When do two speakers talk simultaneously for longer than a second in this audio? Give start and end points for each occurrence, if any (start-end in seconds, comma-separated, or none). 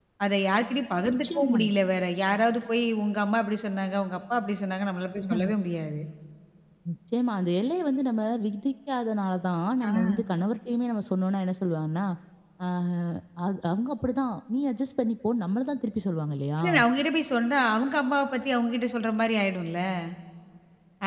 none